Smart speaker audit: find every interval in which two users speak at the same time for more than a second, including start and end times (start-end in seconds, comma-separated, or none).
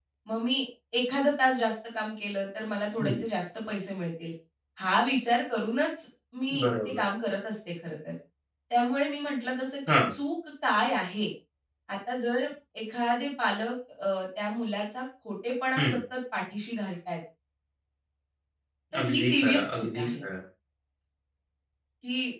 19.0-20.2